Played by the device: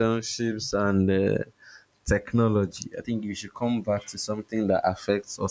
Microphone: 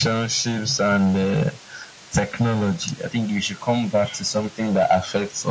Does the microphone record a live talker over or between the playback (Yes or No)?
No